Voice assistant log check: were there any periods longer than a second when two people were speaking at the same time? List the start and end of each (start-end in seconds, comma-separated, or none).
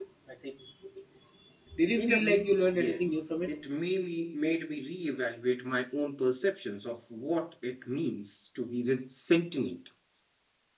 2.0-3.2